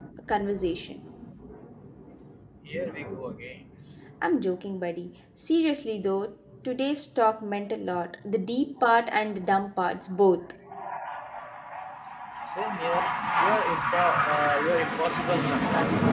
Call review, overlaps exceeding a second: none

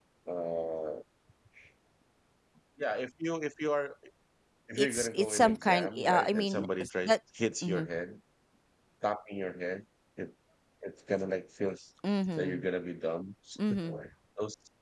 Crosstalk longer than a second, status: present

